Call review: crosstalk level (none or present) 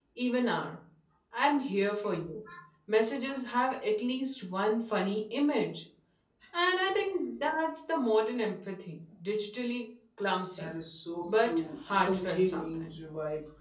present